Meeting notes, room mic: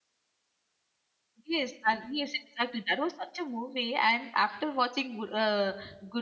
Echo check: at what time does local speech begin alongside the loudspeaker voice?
1.4 s

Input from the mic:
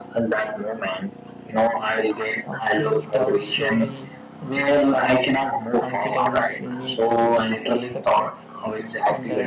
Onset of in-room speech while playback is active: 2.5 s

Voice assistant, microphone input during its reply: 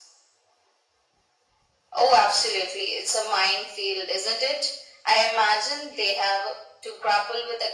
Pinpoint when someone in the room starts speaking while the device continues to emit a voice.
none

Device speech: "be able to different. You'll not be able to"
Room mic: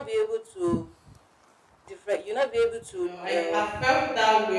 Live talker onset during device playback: 2.9 s

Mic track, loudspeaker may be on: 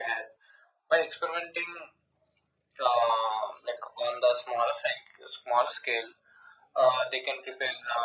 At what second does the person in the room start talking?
none

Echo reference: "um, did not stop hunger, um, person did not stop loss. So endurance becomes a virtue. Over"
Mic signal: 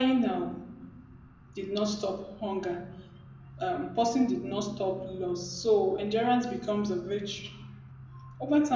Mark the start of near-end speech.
none

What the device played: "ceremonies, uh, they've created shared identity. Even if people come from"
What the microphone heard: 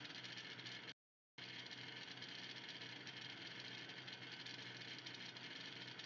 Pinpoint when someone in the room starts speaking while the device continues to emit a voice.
none

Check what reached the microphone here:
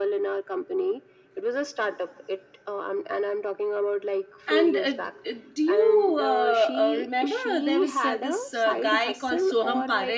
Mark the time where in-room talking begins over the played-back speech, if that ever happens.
4.5 s

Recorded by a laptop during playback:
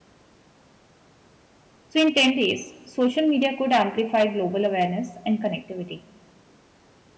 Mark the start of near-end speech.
1.9 s

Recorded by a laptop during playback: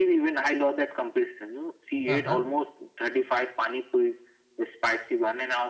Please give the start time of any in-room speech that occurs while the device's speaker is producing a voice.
2.1 s

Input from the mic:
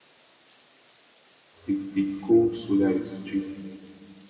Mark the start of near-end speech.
1.7 s

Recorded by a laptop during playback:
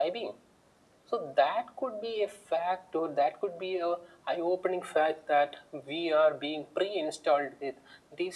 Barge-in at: none

